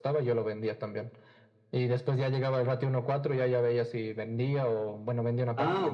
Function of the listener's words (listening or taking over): taking over